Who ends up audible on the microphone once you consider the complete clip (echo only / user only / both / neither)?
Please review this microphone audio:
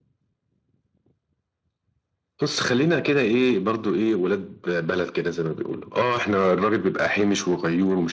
echo only